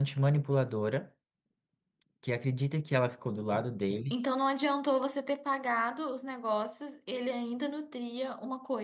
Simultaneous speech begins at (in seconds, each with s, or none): none